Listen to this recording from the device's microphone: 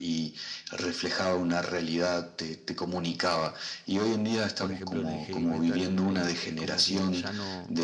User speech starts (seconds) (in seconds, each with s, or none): 4.6 s